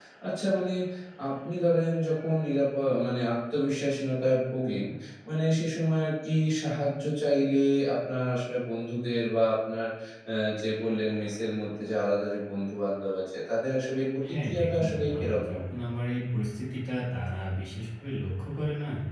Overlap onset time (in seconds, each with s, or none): 14.2 s